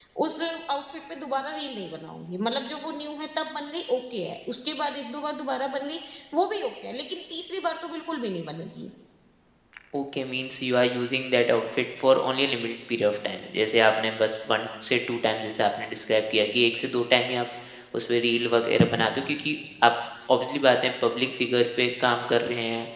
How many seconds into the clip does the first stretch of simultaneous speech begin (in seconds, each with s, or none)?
none